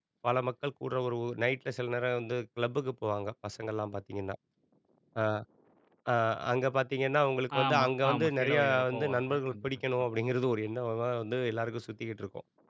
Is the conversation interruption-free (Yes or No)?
No